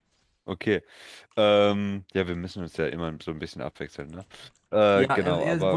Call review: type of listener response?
taking over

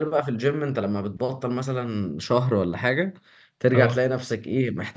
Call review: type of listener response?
listening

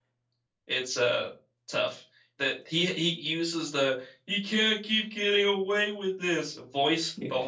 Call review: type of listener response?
taking over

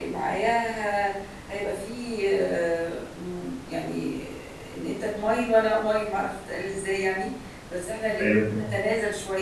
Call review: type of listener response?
listening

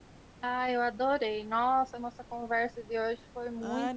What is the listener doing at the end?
taking over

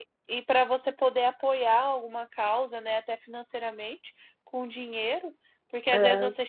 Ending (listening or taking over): listening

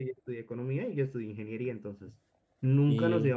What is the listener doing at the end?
listening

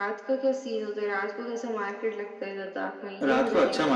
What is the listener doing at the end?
taking over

